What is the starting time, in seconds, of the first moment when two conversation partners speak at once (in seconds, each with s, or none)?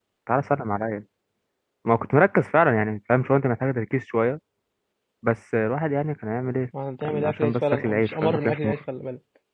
7.0 s